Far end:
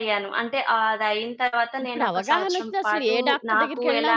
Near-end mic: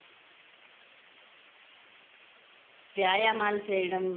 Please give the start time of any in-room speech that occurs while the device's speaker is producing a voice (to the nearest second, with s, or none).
3 s